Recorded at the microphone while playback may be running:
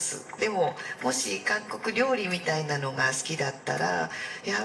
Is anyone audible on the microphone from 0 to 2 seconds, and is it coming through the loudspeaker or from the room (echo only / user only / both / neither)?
echo only